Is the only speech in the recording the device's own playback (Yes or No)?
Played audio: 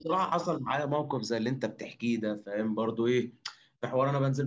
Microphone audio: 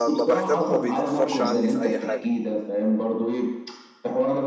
No